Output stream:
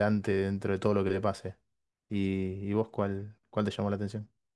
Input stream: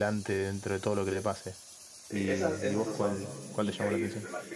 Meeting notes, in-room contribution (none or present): present